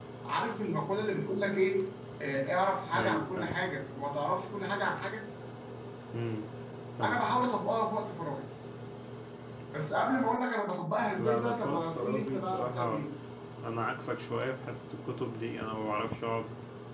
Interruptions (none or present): present